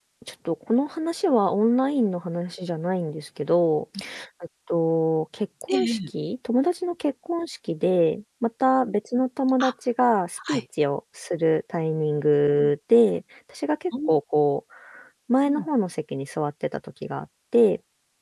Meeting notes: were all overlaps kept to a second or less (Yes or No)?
Yes